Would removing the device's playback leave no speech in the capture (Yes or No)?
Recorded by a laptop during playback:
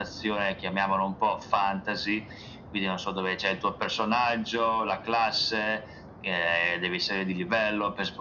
Yes